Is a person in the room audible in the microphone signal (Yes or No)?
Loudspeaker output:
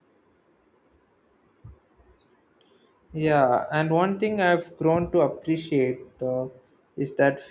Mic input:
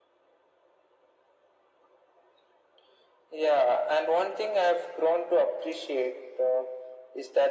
No